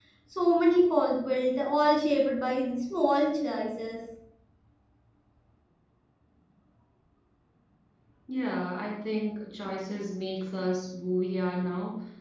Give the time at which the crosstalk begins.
none

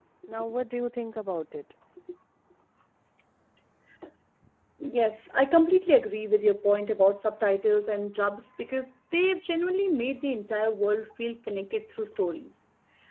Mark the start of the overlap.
none

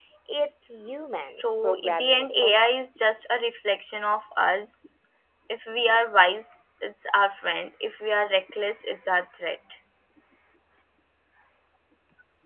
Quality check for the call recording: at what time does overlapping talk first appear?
1.2 s

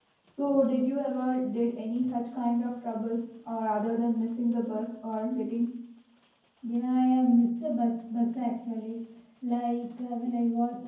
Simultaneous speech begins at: none

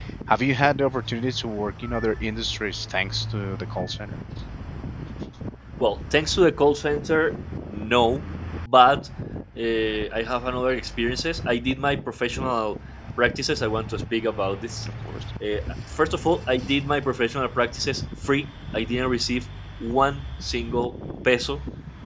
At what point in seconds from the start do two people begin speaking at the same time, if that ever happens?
none

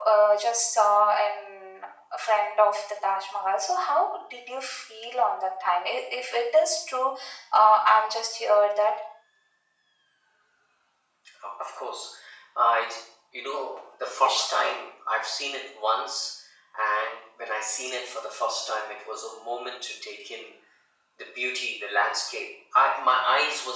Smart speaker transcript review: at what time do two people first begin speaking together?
none

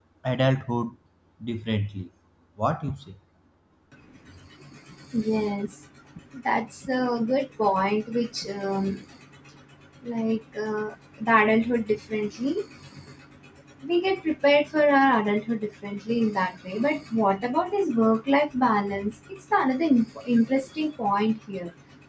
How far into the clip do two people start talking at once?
none

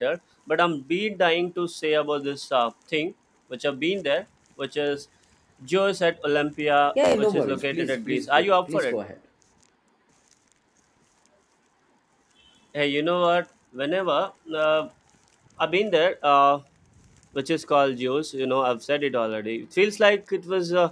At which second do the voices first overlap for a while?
7.0 s

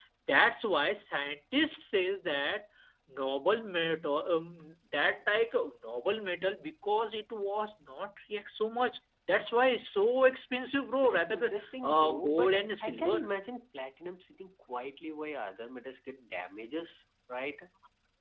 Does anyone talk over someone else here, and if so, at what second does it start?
11.0 s

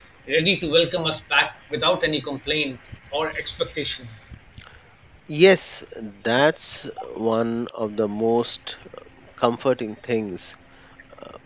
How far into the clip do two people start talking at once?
none

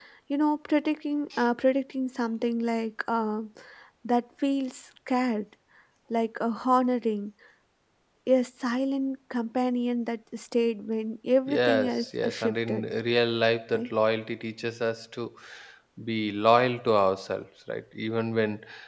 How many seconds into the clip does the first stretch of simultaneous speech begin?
11.5 s

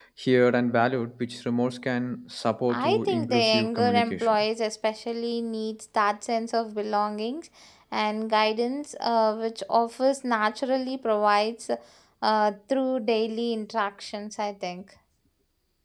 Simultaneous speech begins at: 2.7 s

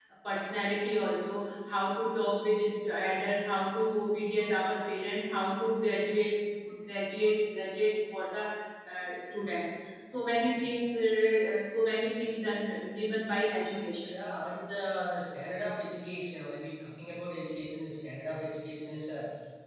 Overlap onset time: none

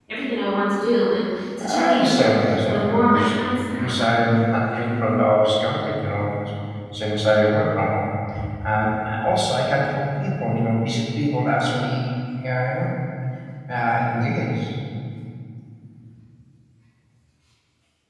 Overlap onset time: 1.6 s

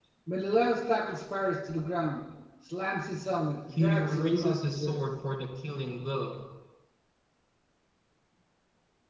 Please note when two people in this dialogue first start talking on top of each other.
3.7 s

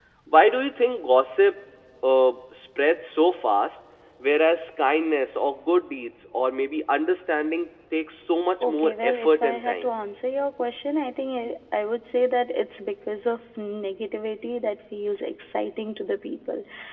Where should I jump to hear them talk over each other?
8.6 s

